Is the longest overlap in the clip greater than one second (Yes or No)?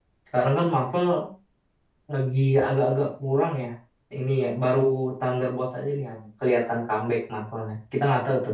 No